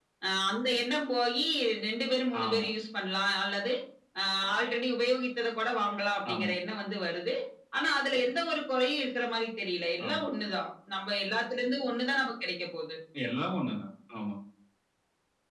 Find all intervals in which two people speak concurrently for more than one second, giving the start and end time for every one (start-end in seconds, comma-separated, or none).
none